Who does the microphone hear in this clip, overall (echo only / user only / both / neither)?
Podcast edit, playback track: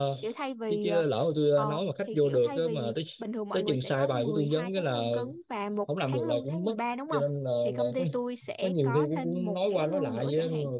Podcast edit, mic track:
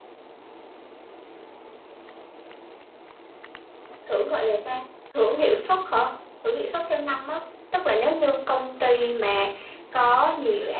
user only